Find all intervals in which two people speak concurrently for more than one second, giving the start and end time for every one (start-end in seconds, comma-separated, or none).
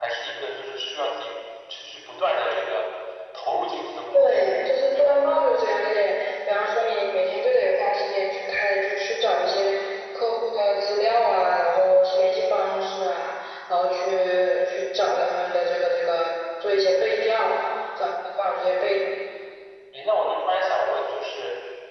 none